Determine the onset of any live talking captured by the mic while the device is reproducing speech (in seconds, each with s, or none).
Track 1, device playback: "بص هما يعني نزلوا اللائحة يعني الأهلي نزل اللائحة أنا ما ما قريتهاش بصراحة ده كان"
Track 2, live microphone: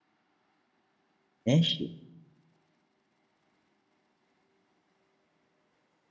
1.5 s